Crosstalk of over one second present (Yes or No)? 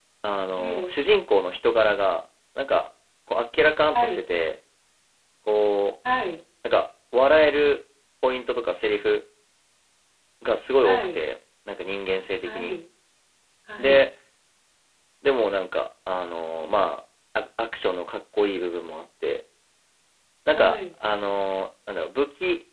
No